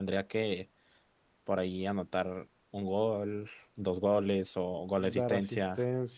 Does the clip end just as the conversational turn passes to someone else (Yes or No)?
Yes